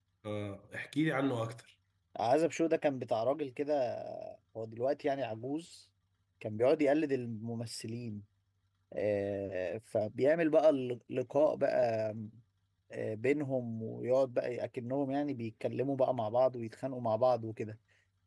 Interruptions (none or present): none